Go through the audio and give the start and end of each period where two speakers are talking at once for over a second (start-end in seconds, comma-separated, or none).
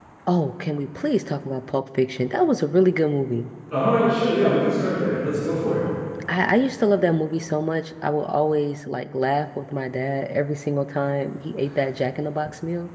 none